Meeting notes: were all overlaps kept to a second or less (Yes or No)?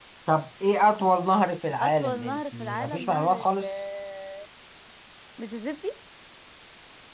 No